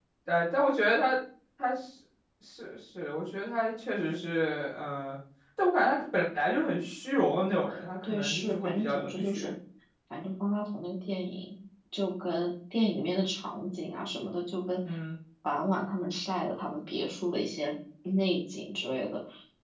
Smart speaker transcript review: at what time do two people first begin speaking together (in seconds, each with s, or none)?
8.0 s